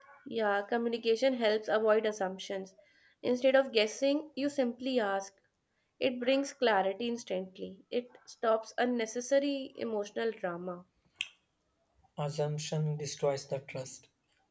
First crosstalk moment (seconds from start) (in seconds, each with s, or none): none